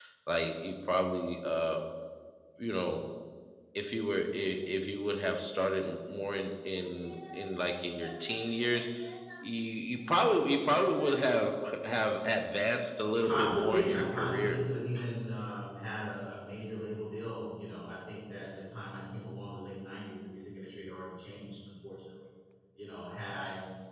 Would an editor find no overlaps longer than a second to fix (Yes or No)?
No